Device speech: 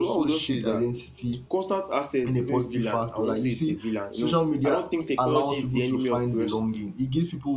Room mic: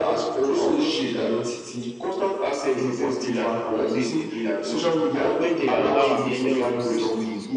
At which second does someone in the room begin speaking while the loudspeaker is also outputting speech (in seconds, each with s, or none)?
5.3 s